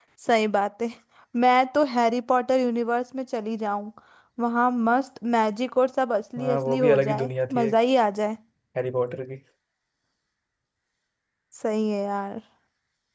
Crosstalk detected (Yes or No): Yes